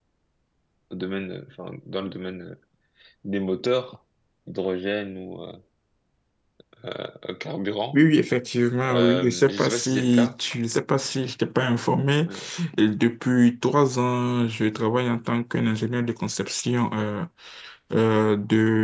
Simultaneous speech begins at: 8.9 s

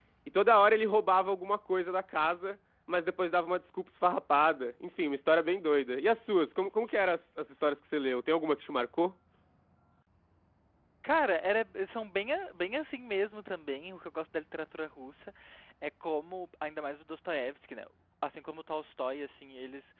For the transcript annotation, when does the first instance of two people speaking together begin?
none

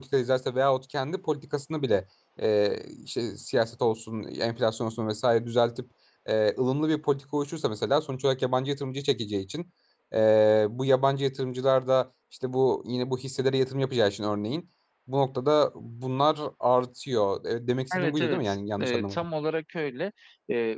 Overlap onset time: 17.9 s

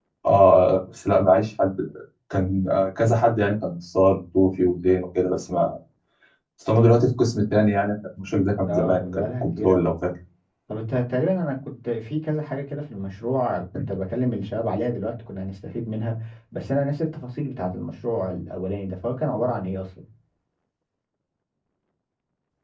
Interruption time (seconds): 8.7 s

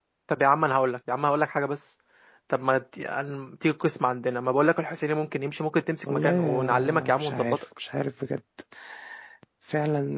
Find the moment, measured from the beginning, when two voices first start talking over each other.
6.1 s

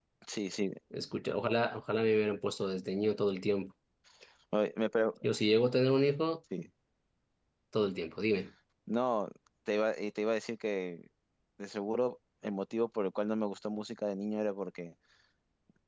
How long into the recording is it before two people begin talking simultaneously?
none

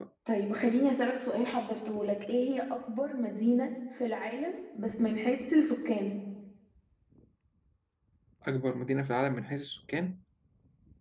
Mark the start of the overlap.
none

